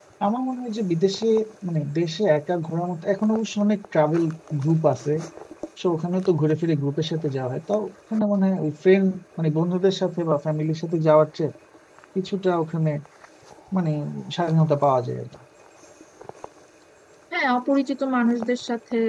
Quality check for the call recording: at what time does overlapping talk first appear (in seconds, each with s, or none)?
none